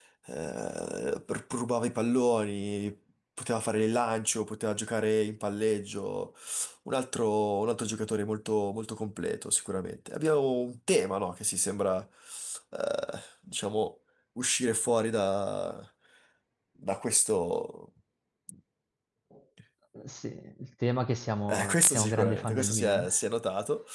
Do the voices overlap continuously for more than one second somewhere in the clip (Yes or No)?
Yes